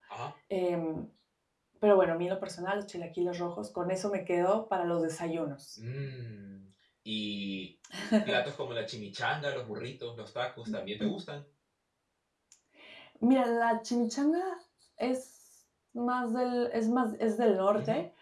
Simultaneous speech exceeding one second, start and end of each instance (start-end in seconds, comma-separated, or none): none